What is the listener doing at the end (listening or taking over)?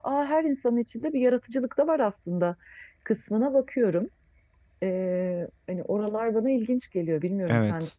taking over